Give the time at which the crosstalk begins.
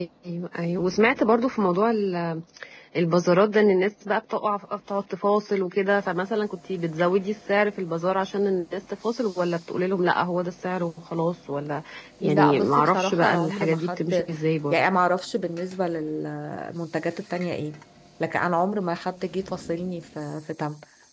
12.2 s

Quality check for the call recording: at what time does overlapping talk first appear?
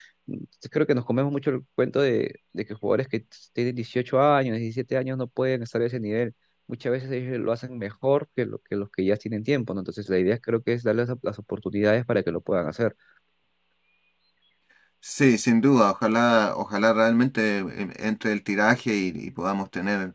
none

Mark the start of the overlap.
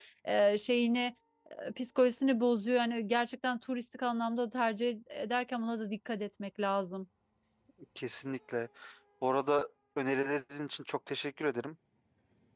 none

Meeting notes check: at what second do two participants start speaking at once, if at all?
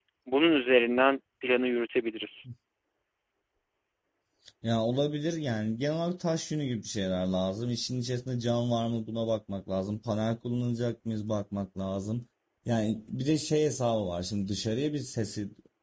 none

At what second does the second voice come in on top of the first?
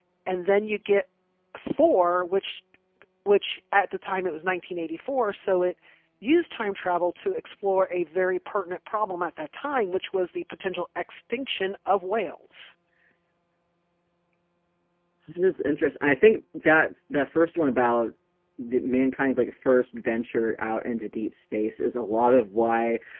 none

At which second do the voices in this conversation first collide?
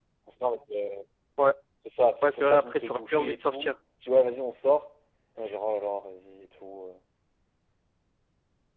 2.2 s

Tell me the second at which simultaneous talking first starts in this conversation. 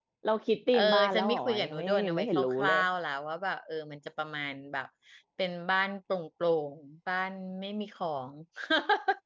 0.7 s

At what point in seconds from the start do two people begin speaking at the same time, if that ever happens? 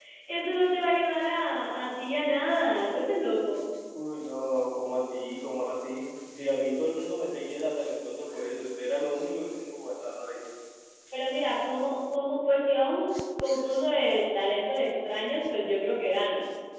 none

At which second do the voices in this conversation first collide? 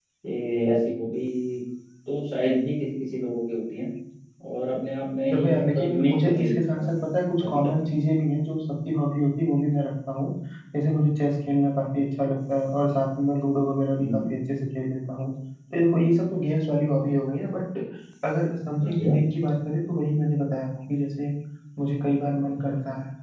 5.3 s

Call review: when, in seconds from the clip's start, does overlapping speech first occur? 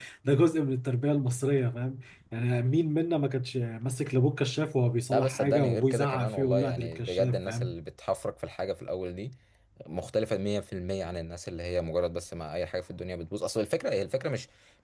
5.1 s

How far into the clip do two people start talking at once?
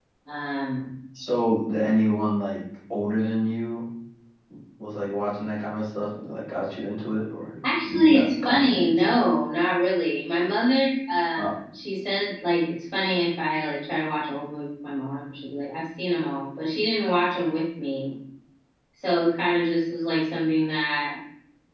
7.6 s

